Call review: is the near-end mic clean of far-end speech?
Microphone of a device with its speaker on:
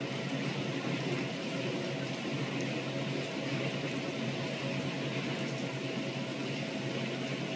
Yes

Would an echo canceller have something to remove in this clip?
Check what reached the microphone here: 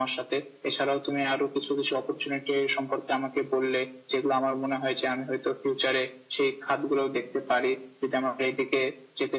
Yes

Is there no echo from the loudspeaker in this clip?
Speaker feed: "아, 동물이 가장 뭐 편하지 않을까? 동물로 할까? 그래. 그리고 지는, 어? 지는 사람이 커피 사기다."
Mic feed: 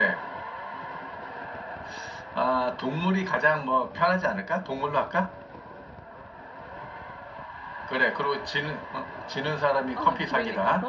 No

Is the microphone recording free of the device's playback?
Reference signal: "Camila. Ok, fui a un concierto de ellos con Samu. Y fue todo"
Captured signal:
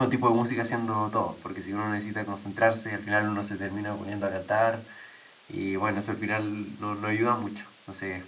Yes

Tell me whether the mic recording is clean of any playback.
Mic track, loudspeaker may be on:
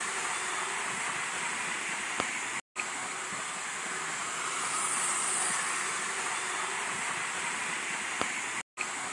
Yes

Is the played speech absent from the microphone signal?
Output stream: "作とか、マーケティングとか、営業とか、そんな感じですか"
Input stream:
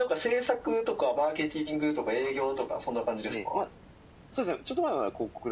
No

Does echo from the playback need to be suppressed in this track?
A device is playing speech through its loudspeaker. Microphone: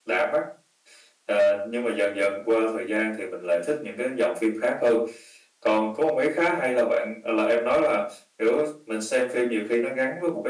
Yes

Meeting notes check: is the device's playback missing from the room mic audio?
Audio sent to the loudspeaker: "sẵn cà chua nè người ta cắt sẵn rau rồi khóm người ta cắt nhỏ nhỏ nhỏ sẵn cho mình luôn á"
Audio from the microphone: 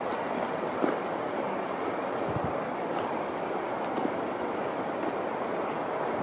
Yes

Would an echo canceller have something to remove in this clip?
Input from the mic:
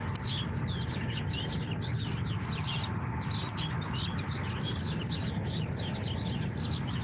No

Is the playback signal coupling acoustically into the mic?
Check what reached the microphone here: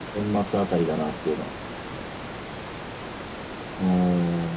Yes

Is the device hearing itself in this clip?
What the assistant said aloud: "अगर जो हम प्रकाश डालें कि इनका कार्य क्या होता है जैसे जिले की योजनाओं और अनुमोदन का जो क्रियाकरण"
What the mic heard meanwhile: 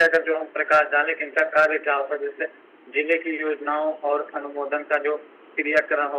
Yes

